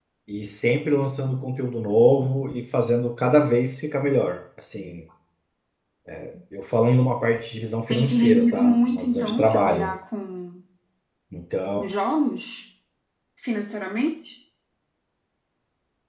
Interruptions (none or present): present